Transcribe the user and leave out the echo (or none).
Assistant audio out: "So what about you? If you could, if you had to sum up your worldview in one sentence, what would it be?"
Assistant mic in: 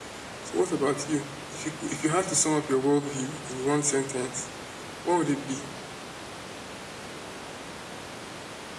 none